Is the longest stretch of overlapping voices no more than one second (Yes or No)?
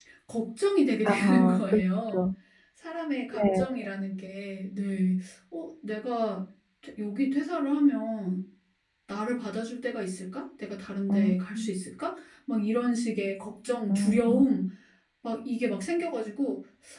No